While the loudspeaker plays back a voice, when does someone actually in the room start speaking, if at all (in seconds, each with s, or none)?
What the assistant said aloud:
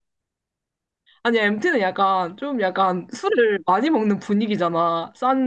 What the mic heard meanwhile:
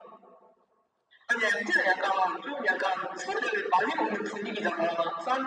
none